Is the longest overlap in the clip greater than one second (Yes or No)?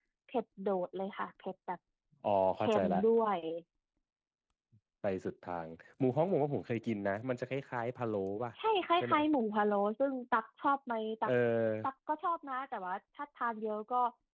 No